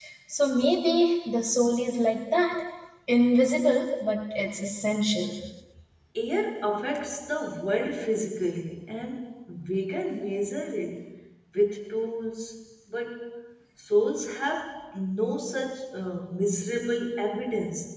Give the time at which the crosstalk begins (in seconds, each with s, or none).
none